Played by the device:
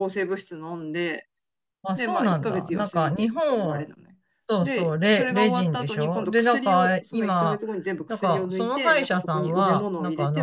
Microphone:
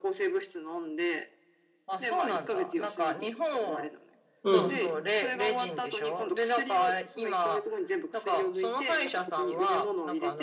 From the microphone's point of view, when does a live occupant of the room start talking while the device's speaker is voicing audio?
4.4 s

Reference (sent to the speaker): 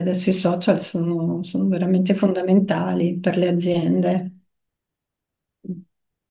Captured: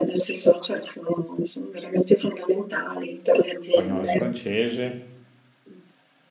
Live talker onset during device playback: 3.7 s

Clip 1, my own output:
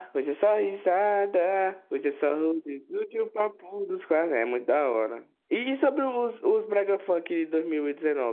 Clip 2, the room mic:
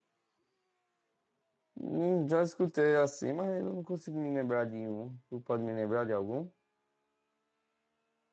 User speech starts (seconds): 1.8 s

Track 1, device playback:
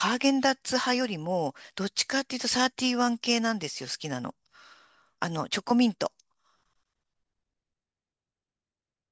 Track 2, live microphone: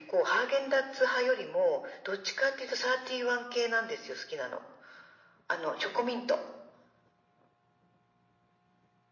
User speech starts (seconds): none

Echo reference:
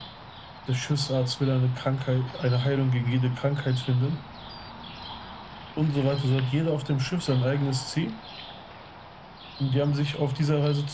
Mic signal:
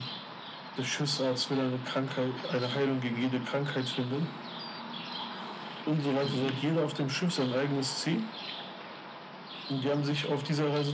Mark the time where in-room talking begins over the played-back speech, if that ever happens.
6.2 s

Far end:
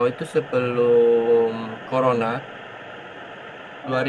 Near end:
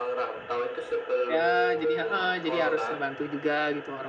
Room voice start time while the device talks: 1.3 s

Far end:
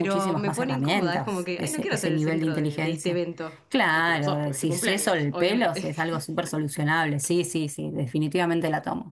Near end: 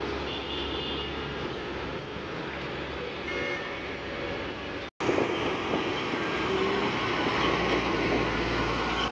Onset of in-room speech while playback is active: none

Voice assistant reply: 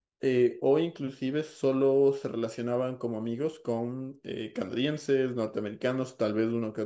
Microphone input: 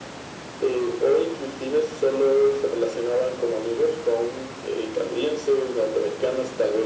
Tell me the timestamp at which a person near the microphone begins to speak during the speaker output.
none

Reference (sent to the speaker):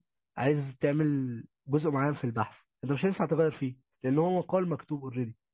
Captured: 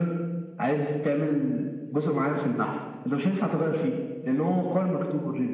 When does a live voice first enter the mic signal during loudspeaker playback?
none

